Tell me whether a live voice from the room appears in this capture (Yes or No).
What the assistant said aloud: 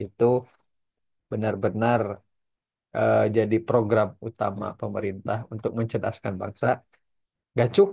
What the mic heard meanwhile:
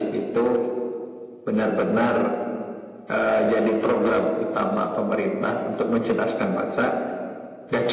No